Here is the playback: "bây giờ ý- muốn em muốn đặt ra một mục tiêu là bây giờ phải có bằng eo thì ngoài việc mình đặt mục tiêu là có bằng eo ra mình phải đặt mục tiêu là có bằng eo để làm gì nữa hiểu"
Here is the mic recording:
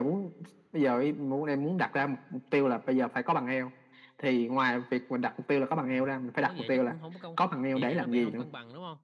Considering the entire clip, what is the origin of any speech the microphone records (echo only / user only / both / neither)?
both